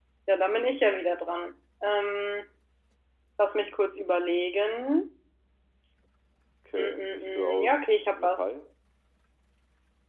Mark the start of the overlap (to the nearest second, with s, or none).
7 s